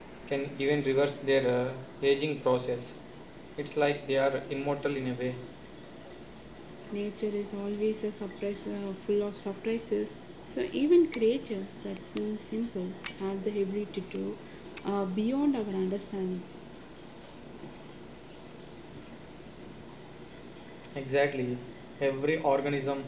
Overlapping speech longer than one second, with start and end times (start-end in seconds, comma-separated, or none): none